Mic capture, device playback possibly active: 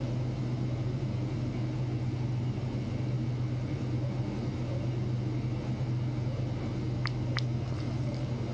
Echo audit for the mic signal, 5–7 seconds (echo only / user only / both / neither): neither